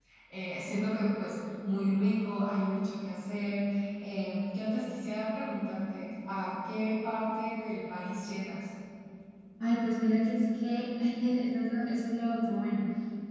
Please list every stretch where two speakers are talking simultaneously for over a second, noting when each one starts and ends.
none

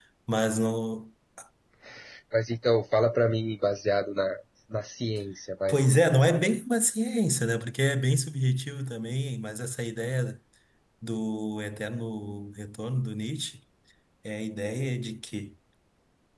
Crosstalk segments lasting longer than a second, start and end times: none

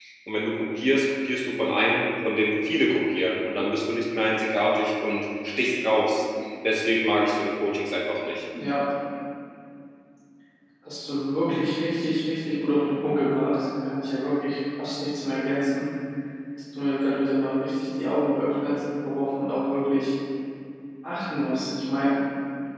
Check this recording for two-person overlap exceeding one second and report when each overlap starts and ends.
none

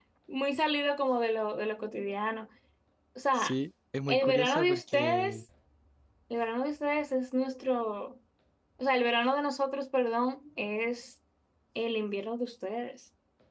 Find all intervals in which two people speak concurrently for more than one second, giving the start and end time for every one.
4.1-5.4

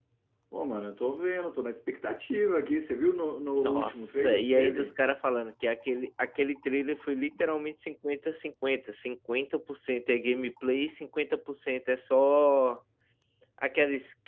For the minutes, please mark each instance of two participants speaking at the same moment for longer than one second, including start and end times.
3.6-4.9

